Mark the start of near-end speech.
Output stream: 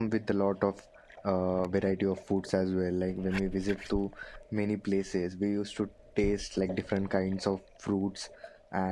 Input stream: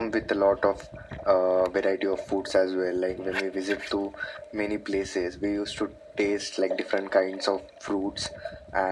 none

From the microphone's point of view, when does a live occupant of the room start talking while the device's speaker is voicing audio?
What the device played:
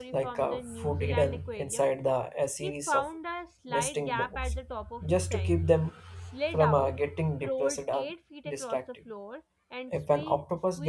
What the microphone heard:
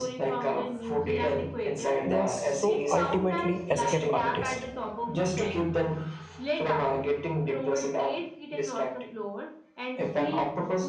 2 s

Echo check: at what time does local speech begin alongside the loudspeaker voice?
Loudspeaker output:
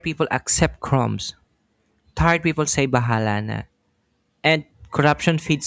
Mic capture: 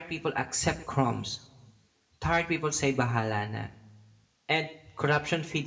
none

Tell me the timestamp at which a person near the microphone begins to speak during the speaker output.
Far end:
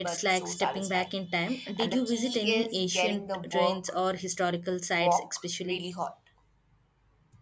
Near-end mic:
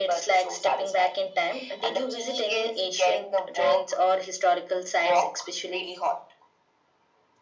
none

